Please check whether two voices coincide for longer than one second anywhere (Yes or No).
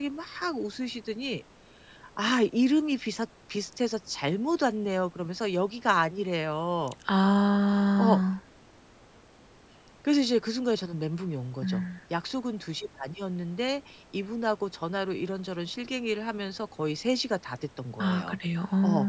No